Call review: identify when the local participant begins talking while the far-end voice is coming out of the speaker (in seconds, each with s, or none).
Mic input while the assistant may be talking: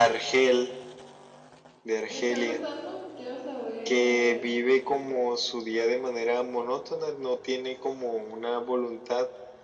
2.1 s